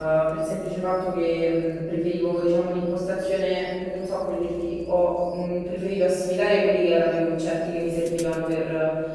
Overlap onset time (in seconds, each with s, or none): none